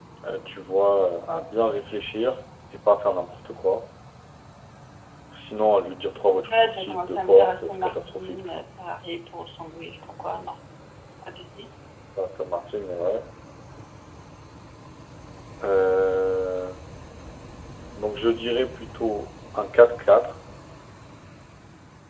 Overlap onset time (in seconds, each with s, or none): 6.8 s